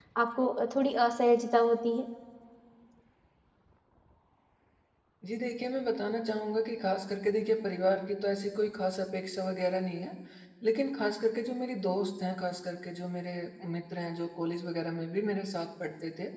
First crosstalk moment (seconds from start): none

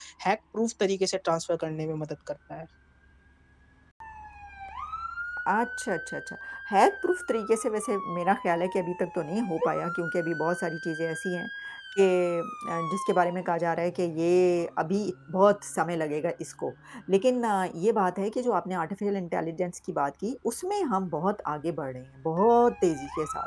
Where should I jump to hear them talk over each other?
none

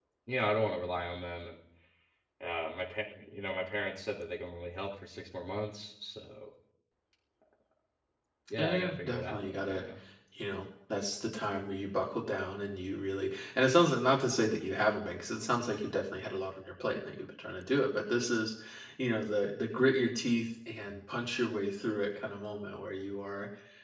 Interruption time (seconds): 8.6 s

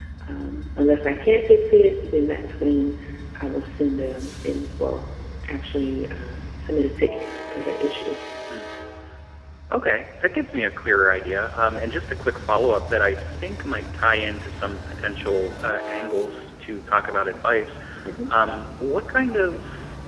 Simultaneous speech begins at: none

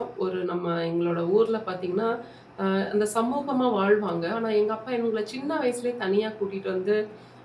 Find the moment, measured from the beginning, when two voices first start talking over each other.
none

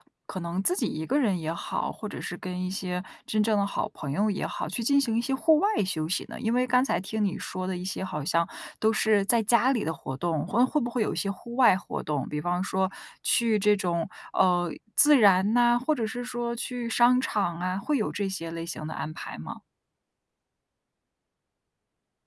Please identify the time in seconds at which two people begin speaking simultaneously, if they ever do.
none

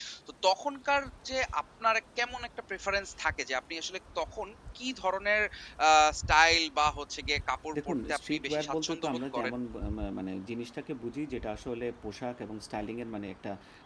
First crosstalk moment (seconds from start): 7.7 s

